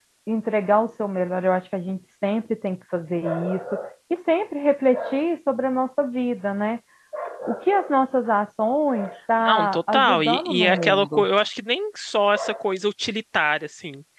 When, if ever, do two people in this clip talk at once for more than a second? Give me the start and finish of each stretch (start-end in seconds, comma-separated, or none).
9.4-11.2